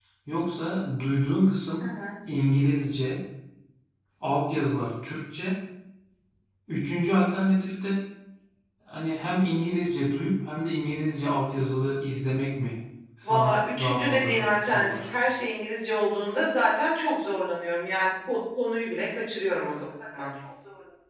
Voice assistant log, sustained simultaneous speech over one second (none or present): present